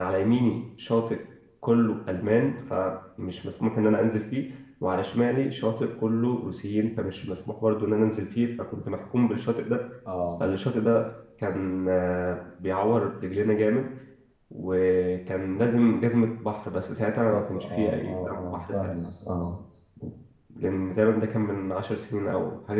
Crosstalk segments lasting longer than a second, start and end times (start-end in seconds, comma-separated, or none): 17.3-18.9